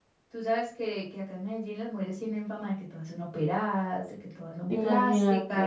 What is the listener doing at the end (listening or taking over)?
listening